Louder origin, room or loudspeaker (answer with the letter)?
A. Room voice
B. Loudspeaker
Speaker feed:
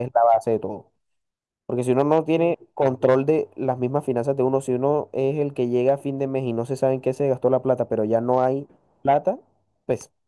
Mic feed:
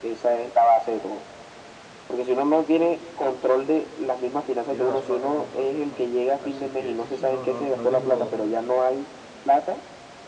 B